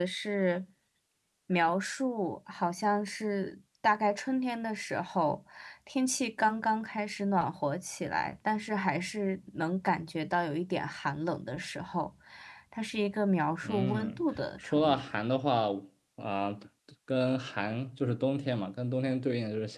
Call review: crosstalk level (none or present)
present